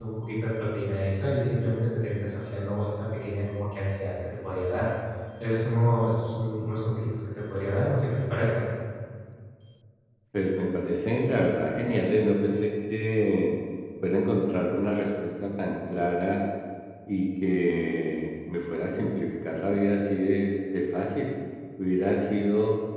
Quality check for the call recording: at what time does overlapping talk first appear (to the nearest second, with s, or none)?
none